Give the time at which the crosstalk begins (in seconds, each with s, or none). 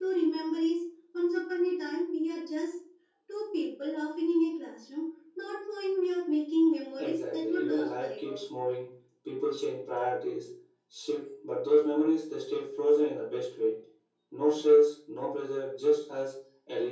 7.0 s